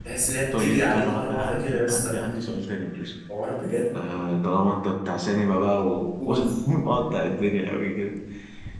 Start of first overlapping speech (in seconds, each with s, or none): 0.5 s